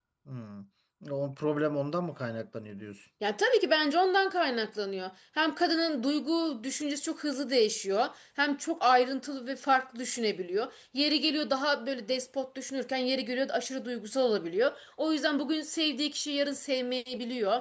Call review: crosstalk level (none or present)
none